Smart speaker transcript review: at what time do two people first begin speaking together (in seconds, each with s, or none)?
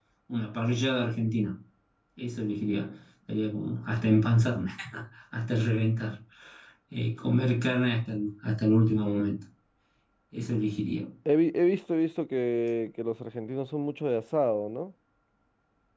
none